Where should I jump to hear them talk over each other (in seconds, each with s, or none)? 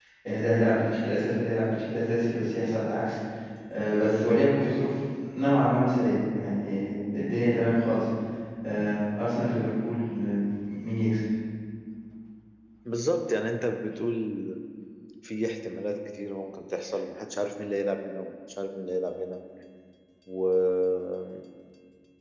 none